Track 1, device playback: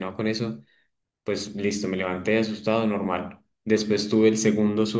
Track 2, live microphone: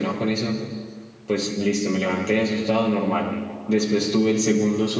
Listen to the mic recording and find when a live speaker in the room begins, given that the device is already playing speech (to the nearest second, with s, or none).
none